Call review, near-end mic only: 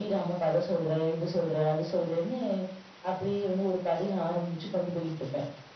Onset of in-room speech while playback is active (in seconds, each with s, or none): none